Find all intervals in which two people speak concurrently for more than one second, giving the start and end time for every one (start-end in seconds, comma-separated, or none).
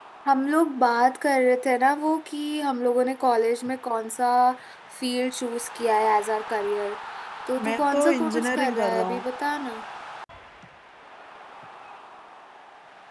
7.6-9.2